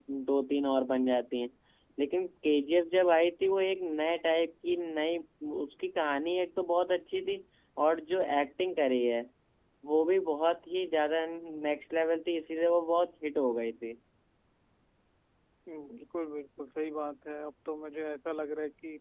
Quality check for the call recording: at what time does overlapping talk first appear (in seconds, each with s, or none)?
none